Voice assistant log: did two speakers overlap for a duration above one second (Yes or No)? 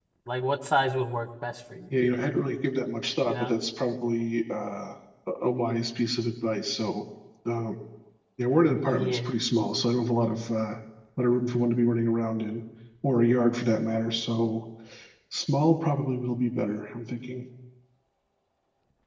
No